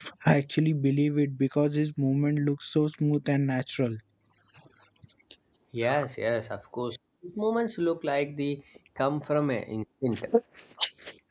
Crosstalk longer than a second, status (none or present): none